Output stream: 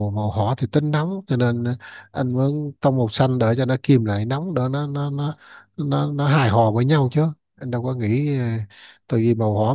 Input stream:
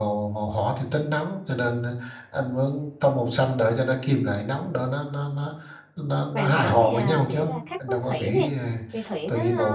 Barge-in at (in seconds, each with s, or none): 6.3 s